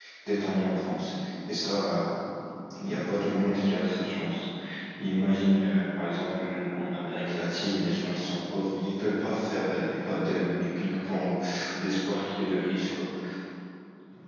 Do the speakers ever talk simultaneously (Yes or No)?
No